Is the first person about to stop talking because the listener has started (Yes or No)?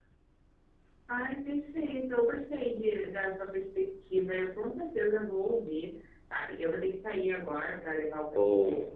No